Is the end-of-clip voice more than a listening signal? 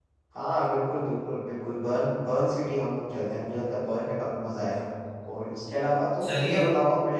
No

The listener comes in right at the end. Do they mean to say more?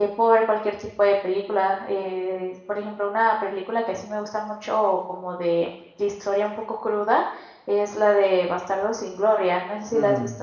Yes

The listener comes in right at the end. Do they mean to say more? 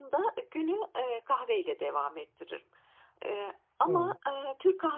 No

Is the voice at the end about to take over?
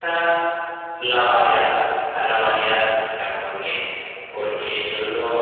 No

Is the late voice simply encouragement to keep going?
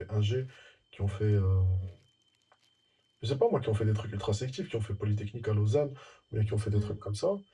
Yes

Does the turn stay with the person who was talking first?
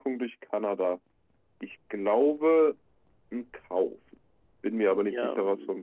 No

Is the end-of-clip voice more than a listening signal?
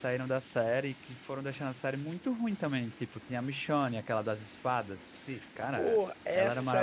Yes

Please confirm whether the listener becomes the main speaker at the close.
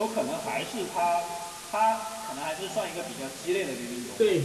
Yes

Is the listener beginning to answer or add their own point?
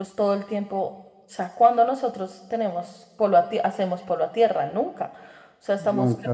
No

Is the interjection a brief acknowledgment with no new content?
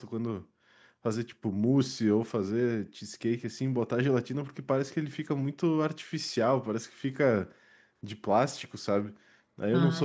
Yes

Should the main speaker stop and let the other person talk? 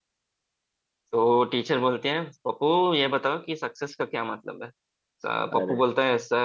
No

